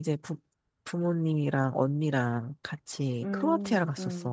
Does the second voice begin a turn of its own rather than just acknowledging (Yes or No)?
Yes